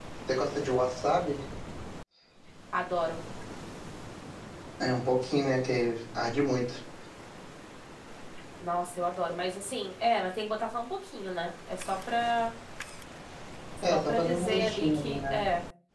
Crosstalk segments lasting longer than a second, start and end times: 13.9-15.4

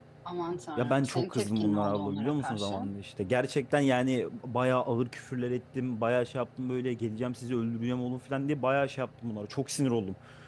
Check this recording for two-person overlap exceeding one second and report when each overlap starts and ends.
0.8-2.8

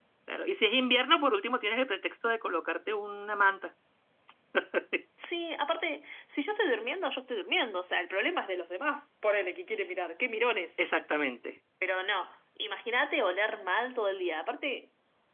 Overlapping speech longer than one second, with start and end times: none

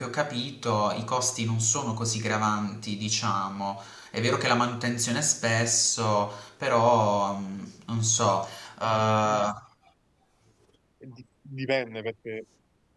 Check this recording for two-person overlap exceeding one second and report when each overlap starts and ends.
none

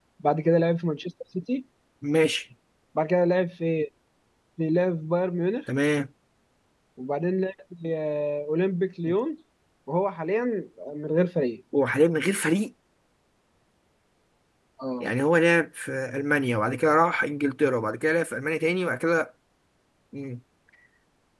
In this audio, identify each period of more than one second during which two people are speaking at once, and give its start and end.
none

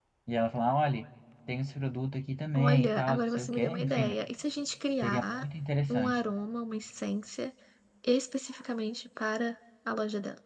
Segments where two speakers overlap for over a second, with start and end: 2.6-4.2

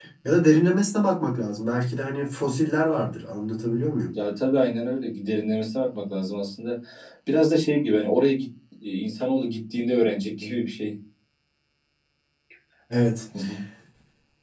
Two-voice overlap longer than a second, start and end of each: none

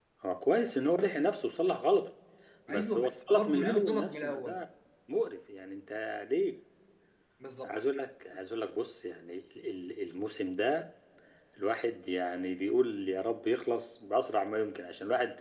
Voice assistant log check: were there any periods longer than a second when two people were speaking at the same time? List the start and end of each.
2.7-4.6

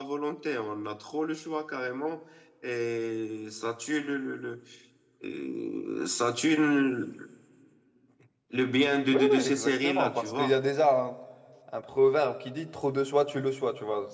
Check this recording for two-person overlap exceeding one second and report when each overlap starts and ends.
9.1-10.5

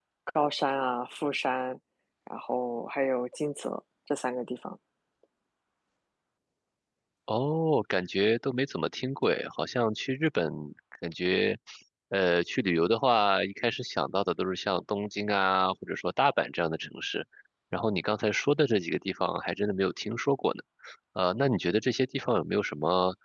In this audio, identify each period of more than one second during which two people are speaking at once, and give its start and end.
none

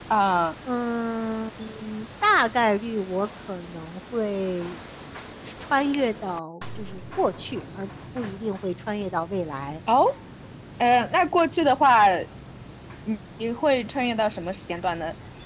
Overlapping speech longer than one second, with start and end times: none

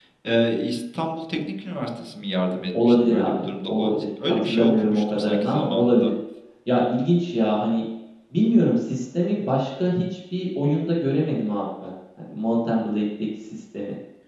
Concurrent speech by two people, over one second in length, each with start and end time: 2.9-6.1

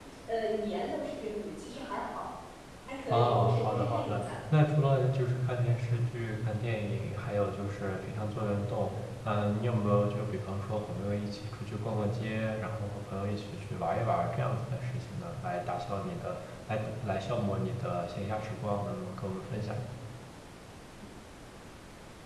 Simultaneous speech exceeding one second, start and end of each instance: 3.1-4.3

